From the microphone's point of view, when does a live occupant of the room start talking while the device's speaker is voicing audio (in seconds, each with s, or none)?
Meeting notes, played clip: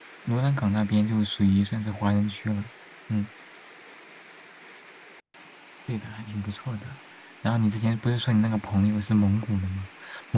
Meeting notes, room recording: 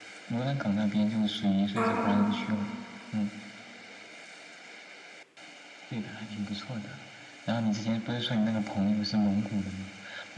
1.7 s